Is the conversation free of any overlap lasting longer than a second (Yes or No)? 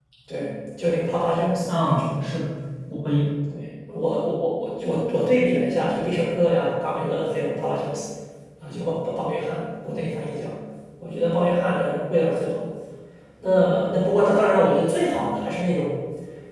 Yes